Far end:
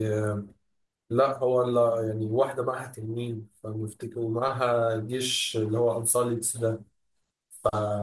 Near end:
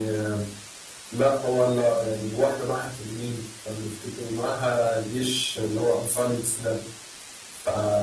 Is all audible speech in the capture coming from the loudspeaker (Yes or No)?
Yes